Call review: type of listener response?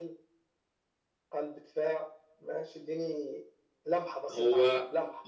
taking over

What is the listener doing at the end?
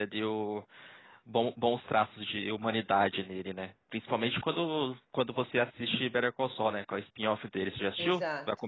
taking over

